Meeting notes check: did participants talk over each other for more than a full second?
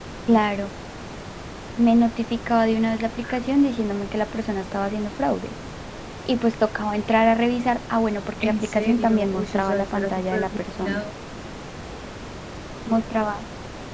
Yes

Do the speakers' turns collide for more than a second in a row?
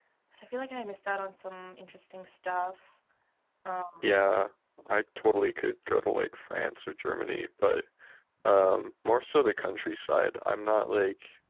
No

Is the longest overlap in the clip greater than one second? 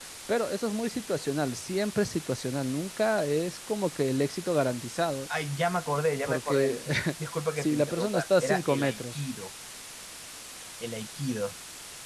Yes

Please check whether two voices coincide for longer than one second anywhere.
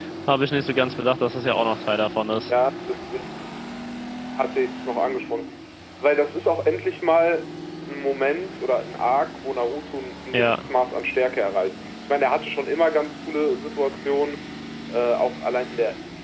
No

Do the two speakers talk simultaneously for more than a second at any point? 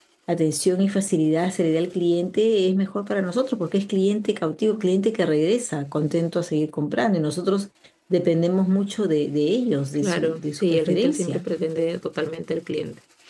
Yes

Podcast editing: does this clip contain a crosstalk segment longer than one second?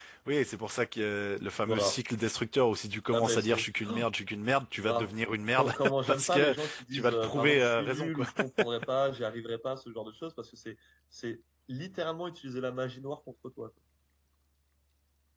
Yes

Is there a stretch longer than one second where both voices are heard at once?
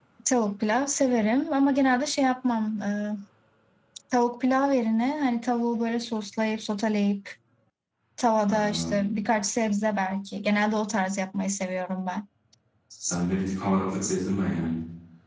No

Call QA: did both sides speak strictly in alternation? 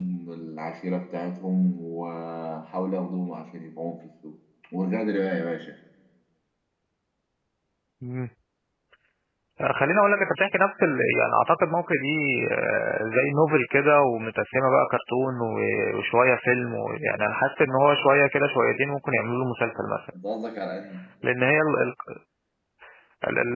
Yes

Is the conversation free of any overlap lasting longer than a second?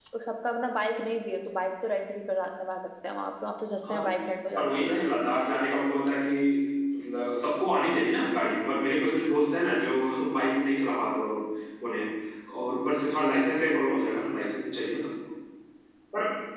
Yes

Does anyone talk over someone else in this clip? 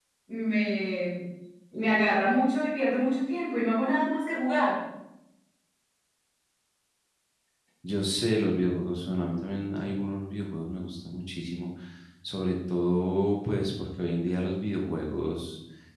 No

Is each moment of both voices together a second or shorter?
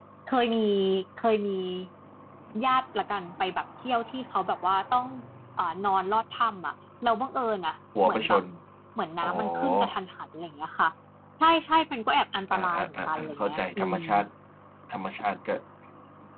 No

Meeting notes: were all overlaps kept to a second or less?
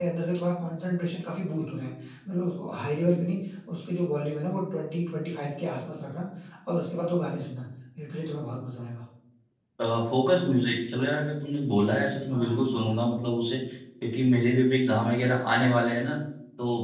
Yes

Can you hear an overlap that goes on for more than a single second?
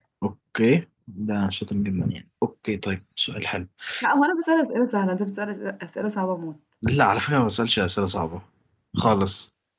No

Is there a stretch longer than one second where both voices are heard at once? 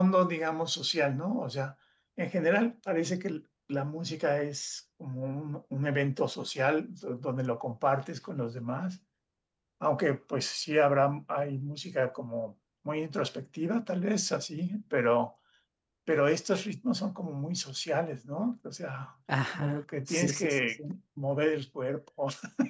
Yes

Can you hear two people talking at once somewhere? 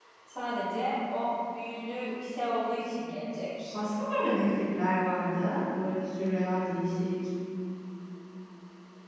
No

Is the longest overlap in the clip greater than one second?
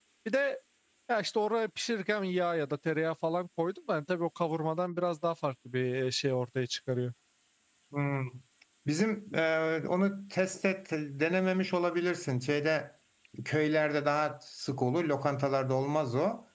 No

